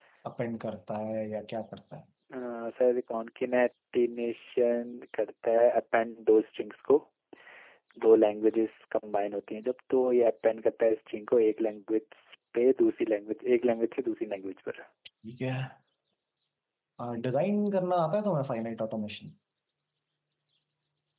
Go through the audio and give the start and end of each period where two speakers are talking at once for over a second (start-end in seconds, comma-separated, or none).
none